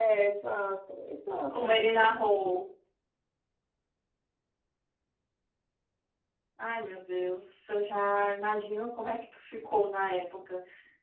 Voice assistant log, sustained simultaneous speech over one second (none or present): none